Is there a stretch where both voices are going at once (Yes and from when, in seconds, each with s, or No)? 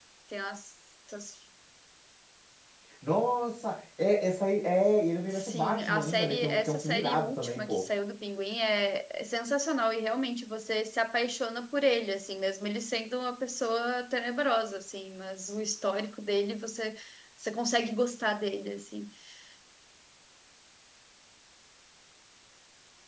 Yes, from 5.3 s